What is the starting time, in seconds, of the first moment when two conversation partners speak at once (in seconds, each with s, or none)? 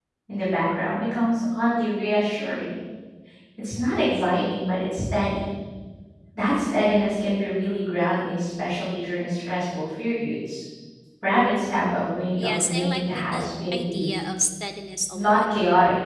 12.4 s